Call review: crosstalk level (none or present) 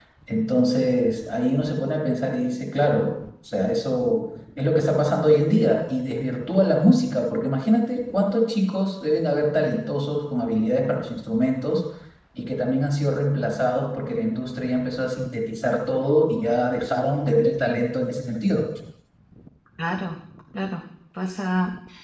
none